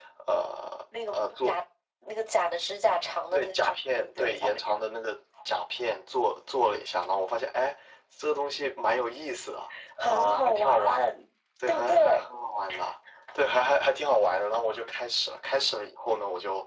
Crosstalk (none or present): present